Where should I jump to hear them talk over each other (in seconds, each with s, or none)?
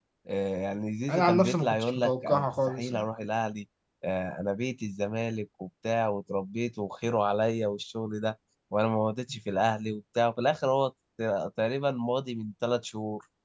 1.1 s